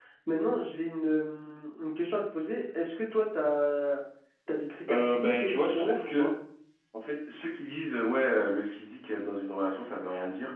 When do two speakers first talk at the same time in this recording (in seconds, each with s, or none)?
4.9 s